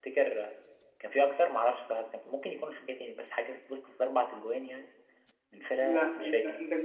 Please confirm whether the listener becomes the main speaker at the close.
Yes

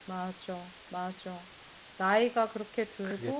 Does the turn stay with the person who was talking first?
Yes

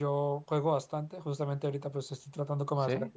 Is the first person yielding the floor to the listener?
No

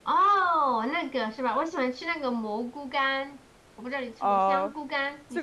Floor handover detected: Yes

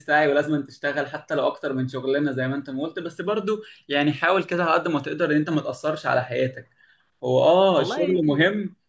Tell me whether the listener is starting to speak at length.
No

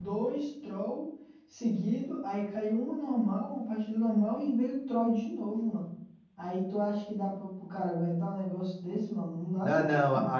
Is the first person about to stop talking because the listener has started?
Yes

